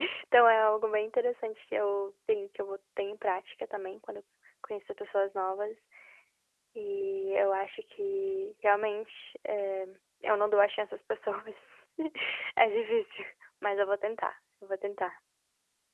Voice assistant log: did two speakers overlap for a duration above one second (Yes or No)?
No